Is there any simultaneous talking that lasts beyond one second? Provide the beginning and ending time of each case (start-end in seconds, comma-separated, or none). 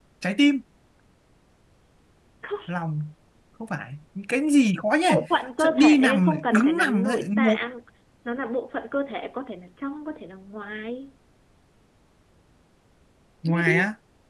5.6-7.6